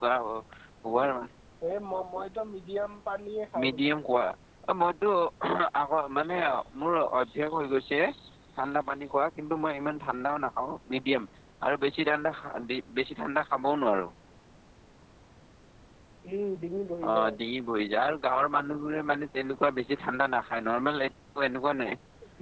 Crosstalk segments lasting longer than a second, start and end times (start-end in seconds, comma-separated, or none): none